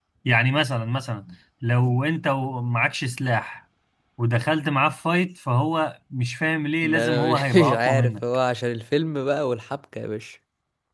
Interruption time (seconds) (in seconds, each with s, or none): 6.8 s